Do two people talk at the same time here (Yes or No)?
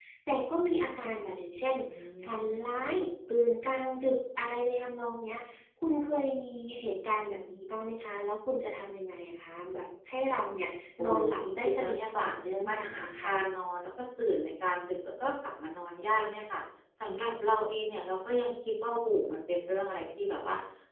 Yes